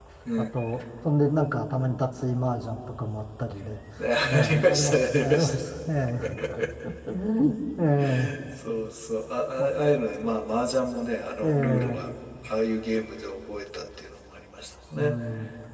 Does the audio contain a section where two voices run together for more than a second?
Yes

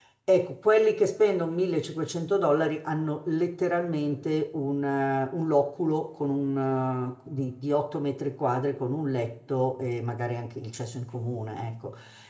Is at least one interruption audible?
No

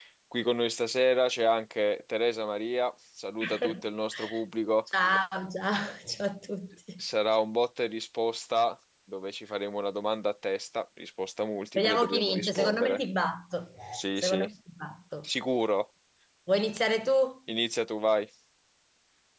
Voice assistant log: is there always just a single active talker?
No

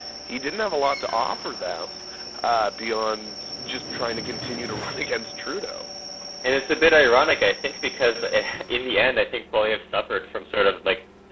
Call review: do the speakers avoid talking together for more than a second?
Yes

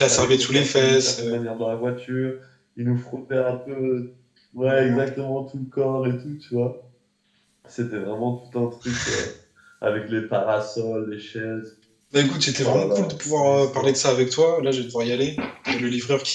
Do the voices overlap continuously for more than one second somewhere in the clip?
Yes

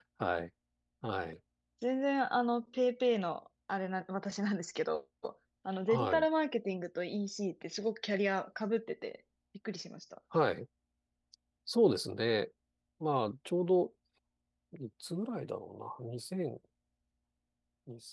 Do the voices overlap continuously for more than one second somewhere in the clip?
No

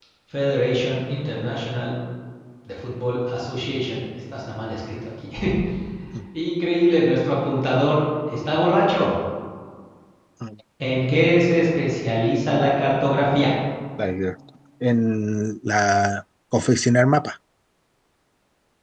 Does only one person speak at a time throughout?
Yes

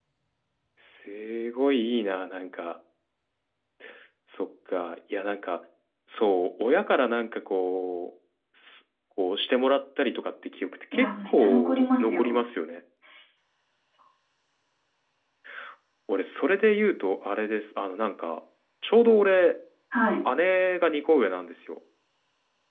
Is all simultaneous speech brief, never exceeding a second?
No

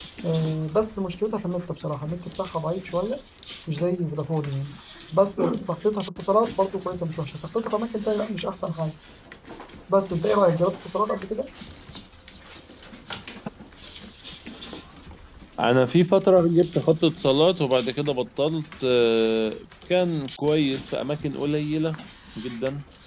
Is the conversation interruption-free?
Yes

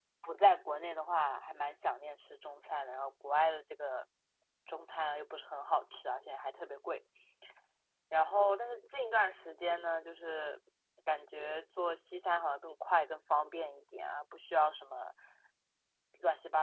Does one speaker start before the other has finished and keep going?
No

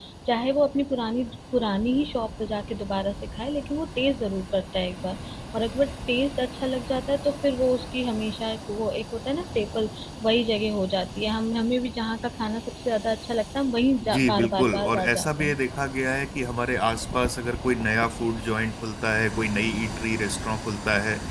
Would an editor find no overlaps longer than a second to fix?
No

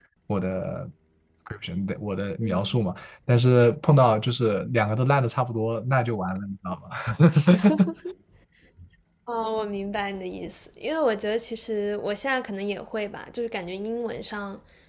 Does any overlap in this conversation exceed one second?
No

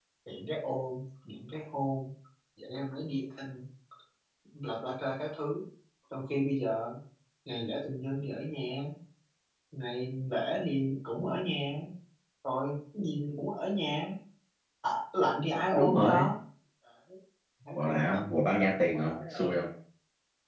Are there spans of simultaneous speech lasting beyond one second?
Yes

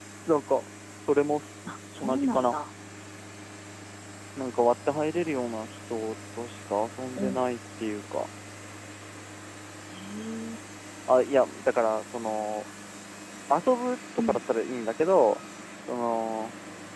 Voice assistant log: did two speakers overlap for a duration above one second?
No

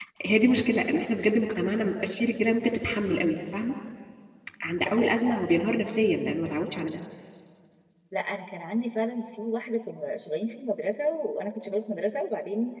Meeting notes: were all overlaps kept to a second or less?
Yes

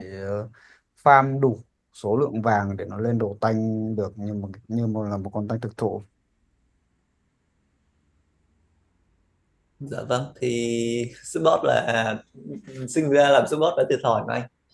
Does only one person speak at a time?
Yes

